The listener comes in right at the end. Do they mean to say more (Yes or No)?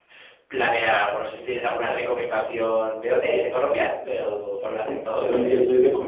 Yes